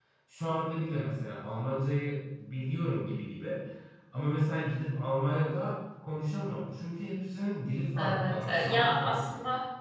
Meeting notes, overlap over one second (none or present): present